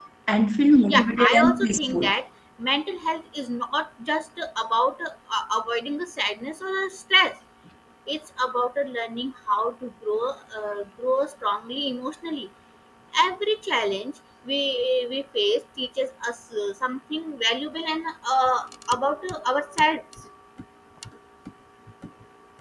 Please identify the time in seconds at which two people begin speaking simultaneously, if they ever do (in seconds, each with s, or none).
0.9 s